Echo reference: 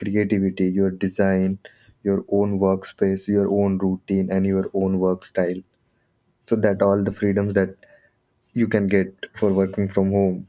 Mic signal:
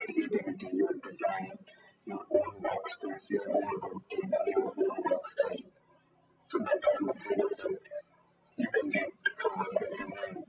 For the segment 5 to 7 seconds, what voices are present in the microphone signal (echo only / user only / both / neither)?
echo only